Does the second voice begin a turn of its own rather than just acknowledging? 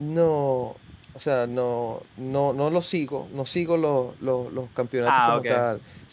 No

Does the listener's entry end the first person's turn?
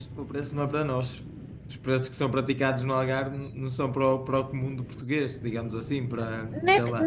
Yes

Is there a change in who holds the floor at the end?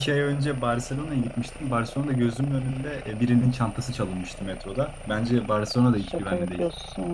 Yes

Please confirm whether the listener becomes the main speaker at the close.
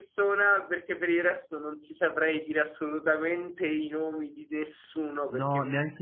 Yes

